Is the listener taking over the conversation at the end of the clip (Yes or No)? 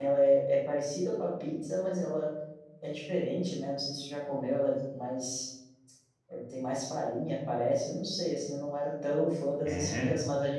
No